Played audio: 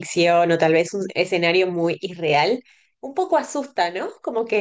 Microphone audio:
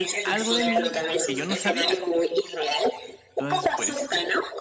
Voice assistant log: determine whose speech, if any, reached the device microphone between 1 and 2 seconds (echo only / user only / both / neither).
both